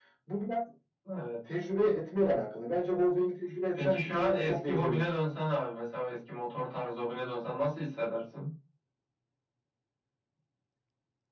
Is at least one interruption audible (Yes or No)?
Yes